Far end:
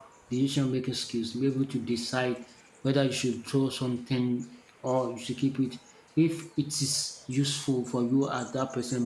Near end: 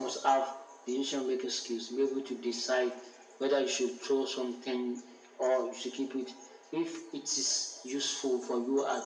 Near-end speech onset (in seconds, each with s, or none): none